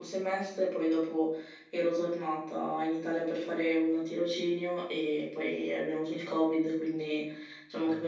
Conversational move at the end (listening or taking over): listening